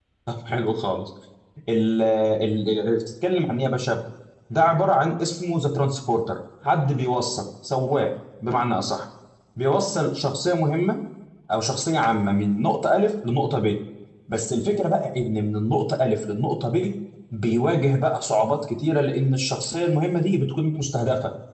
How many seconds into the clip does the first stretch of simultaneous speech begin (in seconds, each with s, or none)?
none